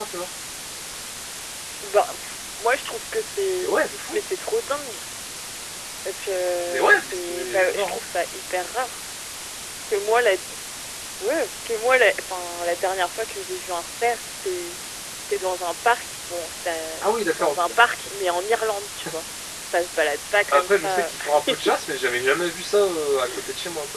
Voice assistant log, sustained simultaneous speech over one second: present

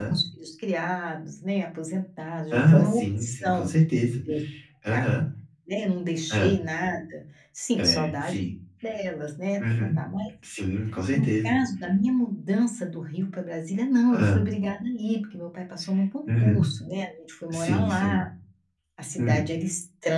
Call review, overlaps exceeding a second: present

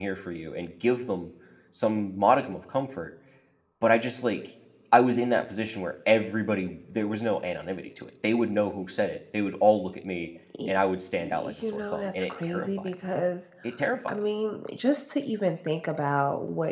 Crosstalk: present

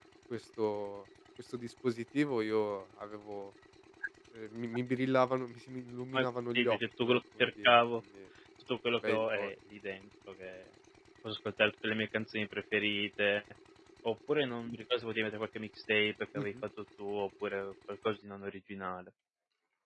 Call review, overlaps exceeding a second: present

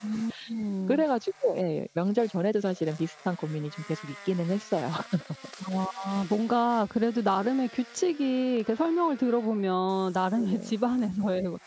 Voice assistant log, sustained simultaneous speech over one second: none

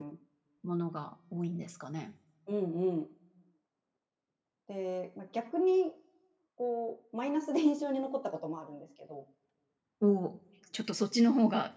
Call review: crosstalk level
none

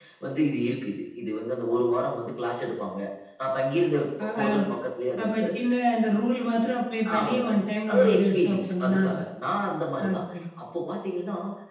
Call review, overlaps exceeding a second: present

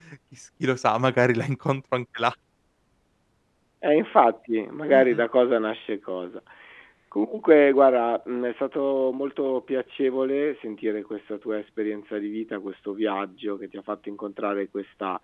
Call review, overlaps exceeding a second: none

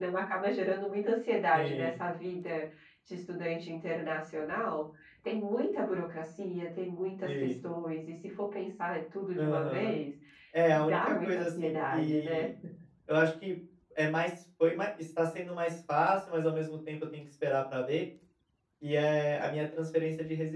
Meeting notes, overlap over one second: present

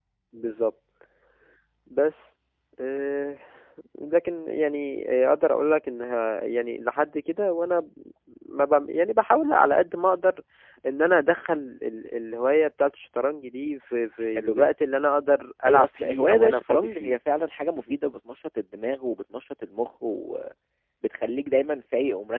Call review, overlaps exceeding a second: present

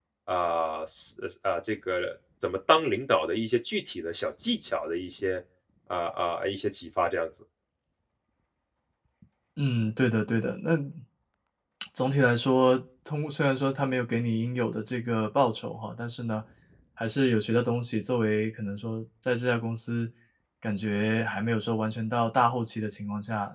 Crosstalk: none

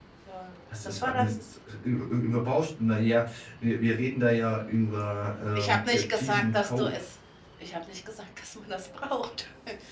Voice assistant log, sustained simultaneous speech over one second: present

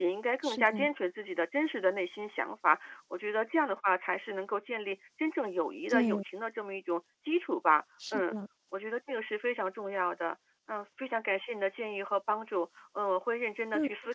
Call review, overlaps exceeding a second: none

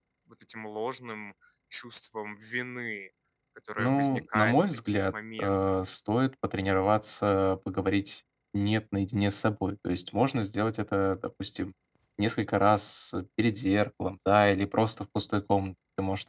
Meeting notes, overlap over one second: present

